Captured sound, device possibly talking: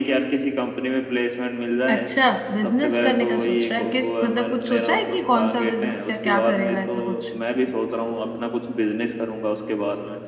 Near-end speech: present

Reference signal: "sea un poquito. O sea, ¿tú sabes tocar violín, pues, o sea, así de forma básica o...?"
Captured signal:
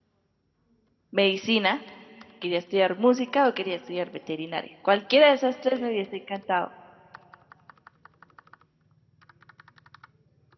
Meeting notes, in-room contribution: present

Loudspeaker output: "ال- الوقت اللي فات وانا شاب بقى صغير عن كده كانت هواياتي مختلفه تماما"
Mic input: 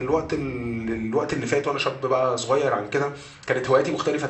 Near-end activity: none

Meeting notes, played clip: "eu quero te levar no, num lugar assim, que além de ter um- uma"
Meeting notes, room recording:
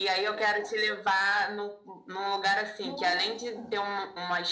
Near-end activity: present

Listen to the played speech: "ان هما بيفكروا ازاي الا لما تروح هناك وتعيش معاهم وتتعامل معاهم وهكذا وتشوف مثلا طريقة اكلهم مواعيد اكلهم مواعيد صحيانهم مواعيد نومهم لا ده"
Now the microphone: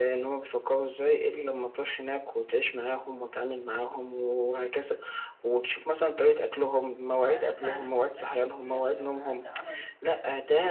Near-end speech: present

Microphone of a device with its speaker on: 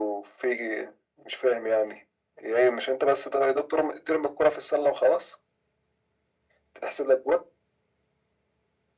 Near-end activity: none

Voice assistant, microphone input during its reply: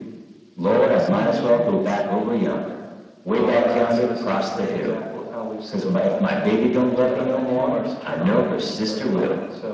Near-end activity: present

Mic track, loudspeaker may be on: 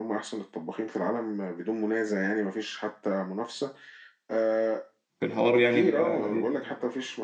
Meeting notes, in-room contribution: present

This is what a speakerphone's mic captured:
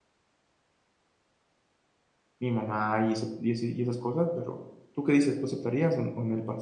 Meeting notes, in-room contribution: present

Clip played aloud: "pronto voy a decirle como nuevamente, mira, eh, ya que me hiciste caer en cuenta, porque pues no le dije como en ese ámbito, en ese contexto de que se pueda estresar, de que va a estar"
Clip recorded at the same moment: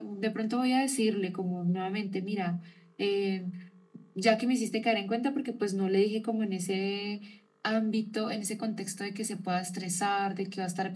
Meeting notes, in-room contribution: none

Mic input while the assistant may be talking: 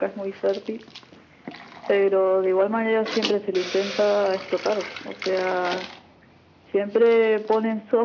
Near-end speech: none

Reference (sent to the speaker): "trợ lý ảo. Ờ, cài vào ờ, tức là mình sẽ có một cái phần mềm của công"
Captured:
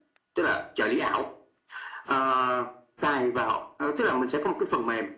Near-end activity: none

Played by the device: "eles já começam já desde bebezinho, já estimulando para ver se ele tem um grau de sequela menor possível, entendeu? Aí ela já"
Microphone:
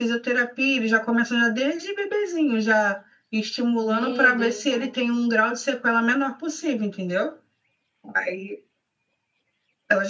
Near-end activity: present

